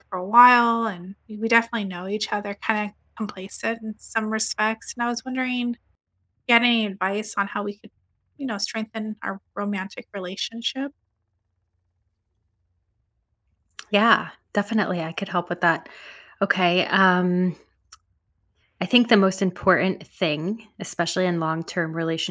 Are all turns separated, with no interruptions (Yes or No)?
Yes